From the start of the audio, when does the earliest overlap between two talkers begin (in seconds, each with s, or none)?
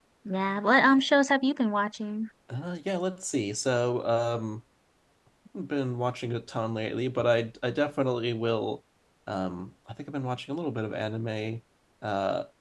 none